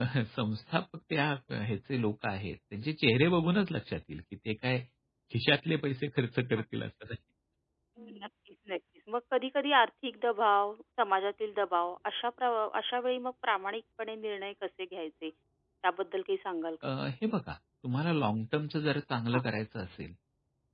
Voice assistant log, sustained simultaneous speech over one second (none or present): none